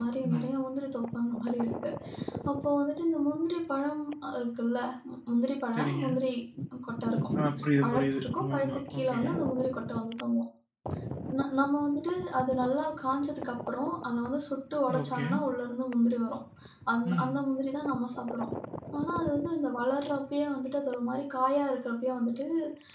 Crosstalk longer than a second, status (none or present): present